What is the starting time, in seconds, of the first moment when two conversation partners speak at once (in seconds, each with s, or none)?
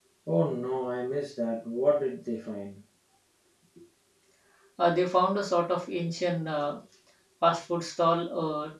none